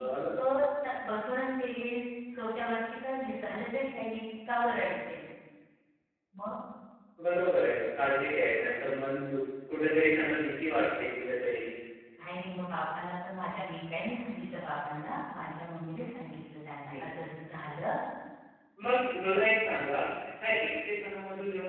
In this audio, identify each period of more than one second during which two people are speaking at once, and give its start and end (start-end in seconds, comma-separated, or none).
none